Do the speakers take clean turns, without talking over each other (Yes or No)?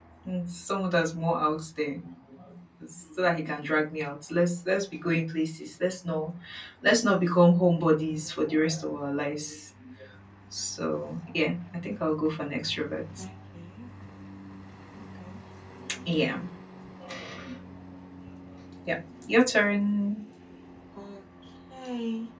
Yes